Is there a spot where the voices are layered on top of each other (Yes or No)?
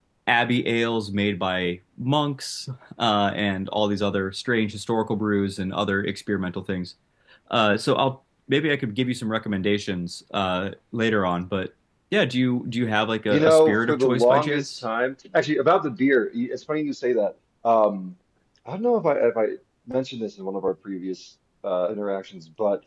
Yes